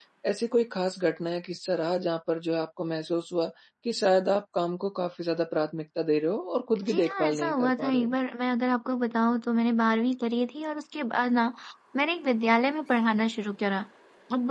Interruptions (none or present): present